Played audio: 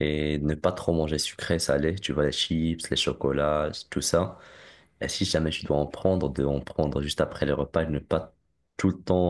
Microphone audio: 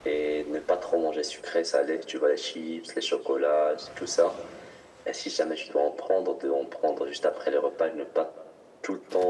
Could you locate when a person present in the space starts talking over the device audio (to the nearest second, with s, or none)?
none